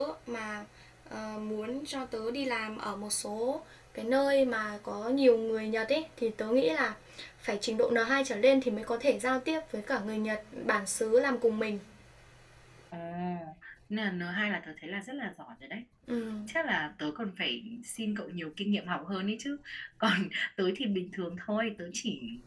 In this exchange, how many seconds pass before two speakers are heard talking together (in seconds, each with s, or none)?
none